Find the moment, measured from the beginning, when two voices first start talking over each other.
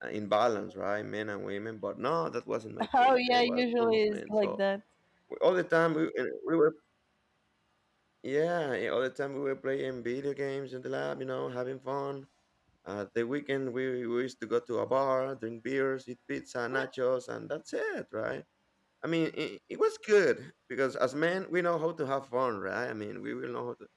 2.9 s

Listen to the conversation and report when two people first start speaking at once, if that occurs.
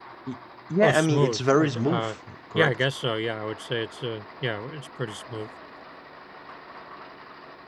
0.8 s

